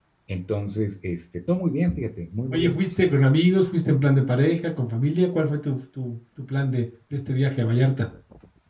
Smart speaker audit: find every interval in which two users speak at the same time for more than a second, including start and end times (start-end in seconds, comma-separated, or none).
none